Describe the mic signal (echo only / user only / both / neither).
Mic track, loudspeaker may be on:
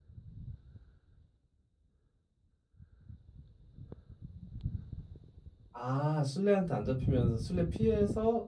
user only